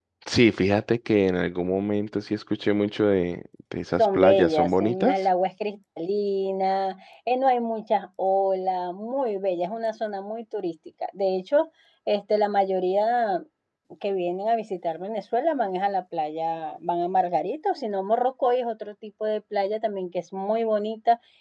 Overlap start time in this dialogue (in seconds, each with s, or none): 4.0 s